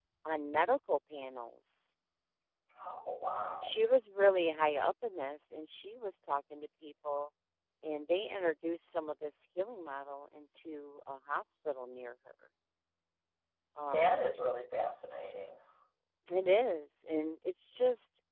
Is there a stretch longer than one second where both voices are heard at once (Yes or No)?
No